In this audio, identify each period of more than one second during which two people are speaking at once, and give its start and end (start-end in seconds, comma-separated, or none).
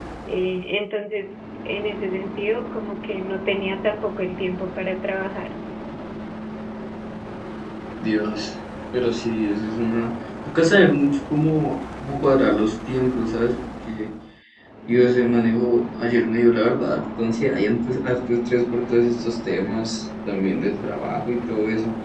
none